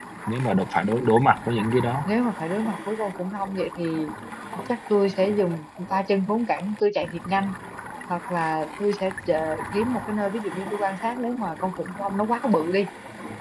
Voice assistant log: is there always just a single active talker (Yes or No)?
Yes